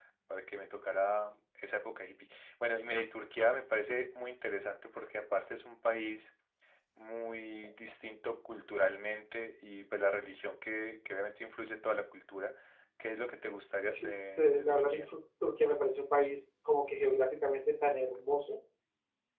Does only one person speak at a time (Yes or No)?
No